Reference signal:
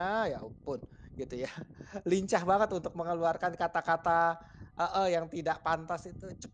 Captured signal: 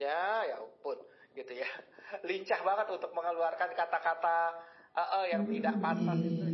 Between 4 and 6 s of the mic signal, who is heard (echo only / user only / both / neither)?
both